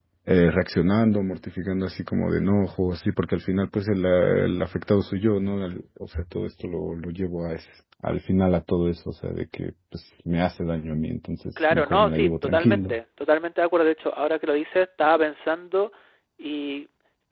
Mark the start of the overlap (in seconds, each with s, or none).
11.6 s